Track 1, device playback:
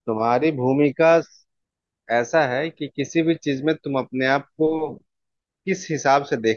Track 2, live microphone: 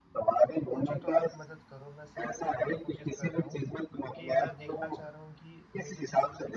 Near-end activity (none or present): present